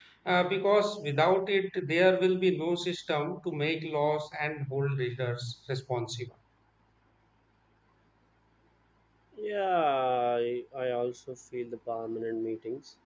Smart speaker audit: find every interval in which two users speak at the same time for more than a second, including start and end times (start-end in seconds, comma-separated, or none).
none